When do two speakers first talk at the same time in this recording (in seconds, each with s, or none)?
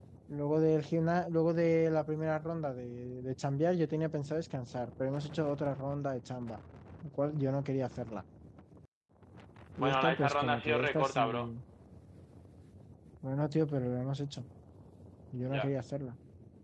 9.8 s